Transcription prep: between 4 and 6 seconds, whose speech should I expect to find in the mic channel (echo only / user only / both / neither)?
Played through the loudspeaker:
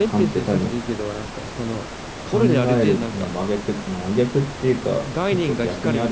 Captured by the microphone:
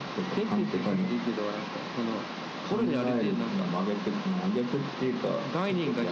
echo only